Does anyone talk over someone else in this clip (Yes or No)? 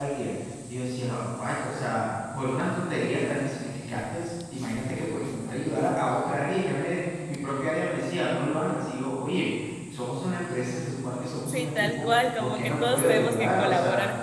Yes